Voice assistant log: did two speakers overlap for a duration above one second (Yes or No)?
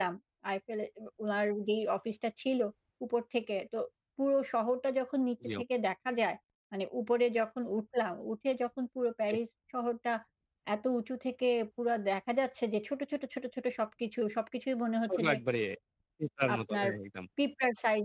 No